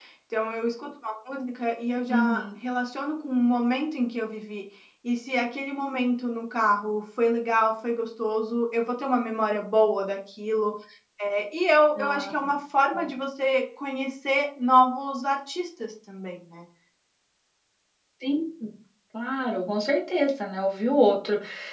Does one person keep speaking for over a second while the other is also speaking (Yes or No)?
No